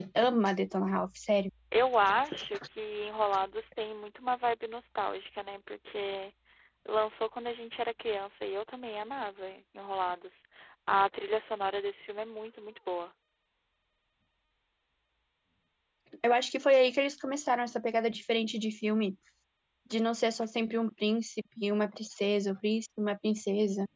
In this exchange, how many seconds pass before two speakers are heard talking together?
none

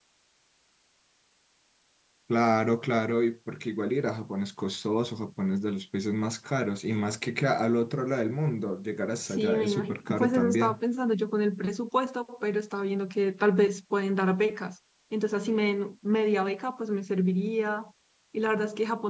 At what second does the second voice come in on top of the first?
9 s

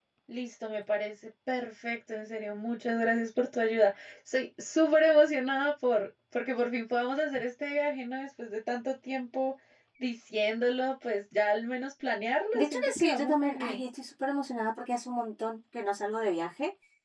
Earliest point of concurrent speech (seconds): 13 s

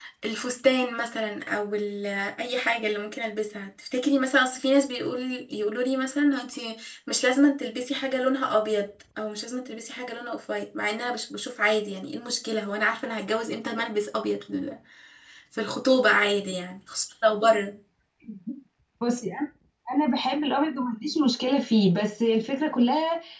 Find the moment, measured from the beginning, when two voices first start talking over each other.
none

